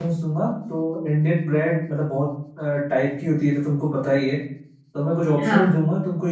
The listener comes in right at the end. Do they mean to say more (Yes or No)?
No